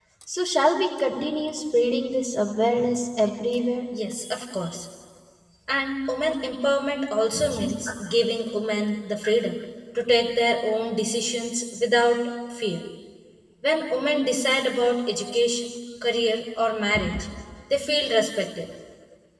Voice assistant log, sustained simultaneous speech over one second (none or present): none